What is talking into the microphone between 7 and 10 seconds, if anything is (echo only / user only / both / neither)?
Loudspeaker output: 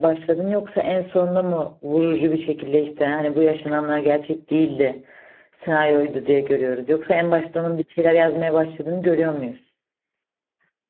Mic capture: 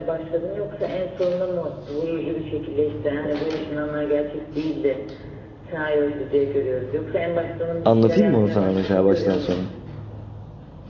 both